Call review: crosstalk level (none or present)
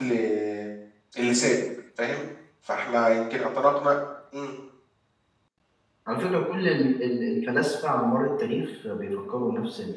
none